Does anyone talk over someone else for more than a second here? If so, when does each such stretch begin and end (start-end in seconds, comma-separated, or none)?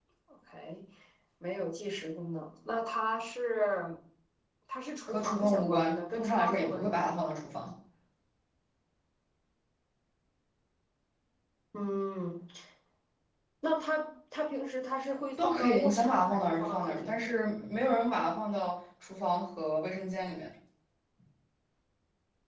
5.0-7.3, 15.4-17.2